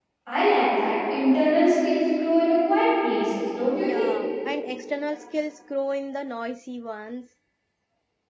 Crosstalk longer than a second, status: none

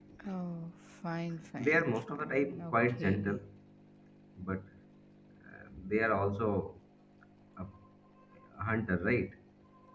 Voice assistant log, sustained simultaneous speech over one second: present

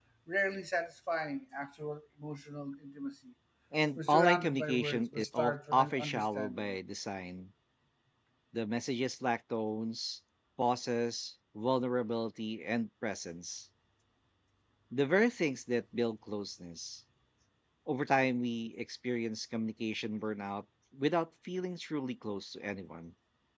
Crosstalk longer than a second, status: present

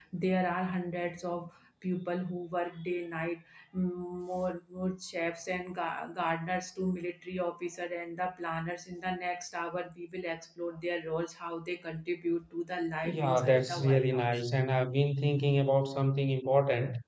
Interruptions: present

